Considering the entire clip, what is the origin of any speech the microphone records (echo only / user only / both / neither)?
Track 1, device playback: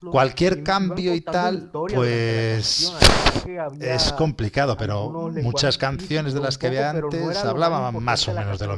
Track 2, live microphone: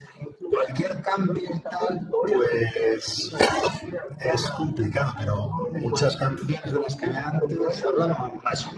echo only